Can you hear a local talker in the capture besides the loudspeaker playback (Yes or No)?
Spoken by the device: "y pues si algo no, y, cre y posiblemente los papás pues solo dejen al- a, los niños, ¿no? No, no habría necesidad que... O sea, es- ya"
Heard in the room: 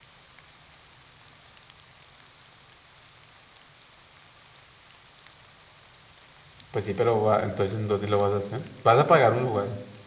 Yes